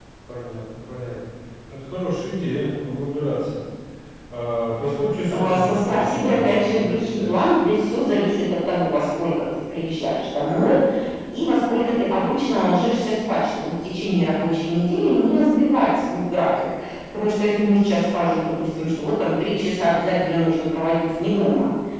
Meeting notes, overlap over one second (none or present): present